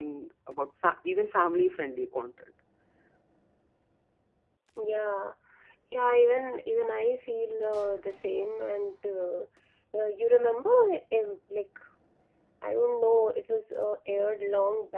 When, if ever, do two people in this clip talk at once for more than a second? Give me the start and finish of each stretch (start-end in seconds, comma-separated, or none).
none